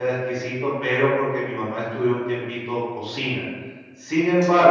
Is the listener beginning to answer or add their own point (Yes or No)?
No